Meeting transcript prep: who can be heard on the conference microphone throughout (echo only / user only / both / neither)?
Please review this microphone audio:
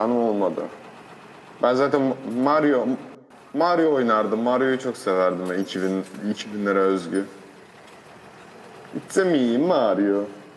echo only